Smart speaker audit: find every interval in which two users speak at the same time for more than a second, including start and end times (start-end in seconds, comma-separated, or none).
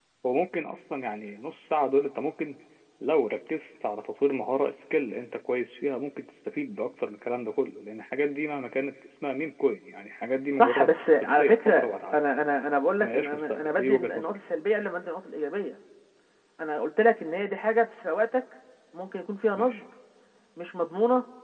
10.6-12.2, 13.0-14.4